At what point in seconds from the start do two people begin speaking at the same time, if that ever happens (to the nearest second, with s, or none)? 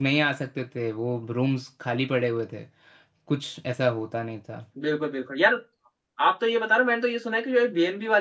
none